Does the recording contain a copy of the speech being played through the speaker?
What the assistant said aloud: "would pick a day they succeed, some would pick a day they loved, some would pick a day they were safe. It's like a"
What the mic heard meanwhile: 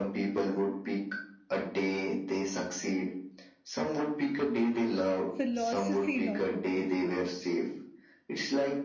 Yes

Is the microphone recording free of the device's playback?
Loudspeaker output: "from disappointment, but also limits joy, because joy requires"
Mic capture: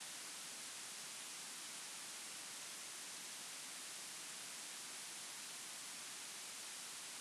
Yes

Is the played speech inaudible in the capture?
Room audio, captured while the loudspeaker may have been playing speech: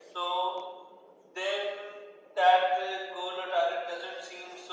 No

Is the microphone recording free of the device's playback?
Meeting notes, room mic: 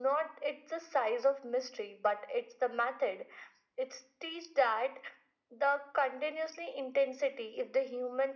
No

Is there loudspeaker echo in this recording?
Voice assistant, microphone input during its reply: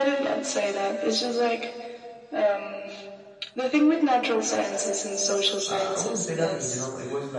Yes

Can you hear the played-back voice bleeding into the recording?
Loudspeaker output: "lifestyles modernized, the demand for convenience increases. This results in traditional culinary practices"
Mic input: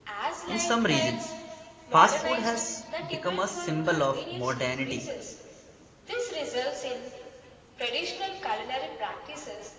Yes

